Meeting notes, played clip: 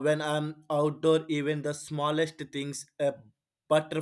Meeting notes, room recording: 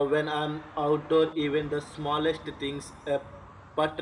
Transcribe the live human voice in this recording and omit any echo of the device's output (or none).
none